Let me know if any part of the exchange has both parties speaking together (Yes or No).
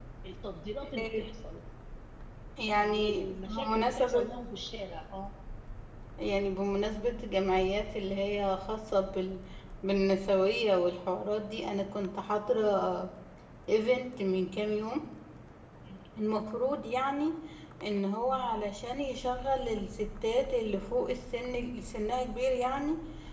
Yes